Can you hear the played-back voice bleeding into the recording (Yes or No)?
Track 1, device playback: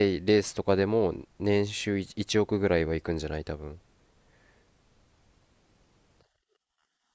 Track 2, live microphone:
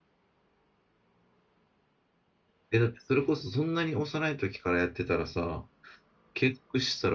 No